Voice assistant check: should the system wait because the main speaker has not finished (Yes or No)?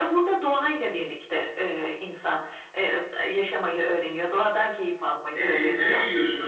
No